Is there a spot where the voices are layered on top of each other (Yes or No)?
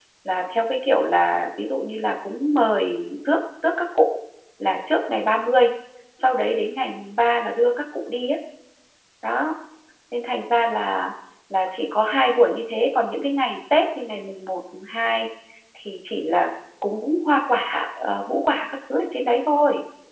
No